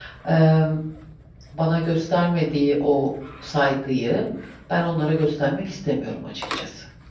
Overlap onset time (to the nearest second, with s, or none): none